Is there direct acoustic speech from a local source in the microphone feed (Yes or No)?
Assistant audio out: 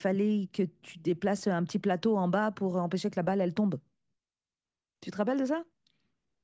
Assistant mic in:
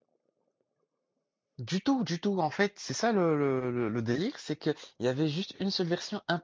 Yes